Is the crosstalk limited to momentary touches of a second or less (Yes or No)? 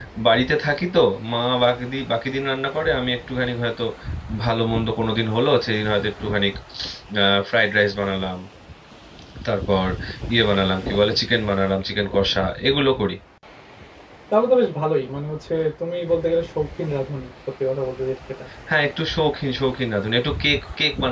Yes